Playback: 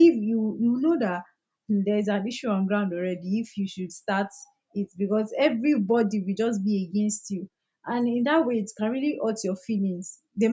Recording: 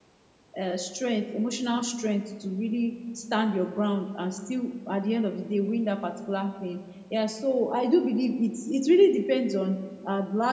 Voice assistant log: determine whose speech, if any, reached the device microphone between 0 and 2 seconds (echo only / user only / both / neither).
user only